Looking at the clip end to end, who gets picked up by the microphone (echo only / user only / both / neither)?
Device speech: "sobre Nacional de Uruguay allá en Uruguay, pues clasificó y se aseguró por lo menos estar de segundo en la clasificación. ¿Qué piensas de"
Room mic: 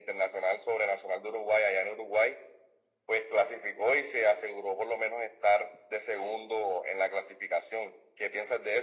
echo only